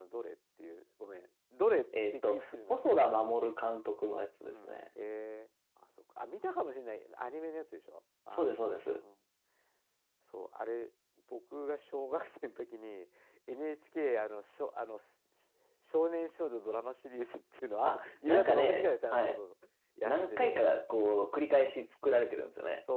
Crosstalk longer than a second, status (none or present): present